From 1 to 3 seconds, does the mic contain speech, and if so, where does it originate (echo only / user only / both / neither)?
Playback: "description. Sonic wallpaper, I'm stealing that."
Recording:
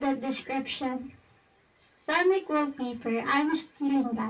echo only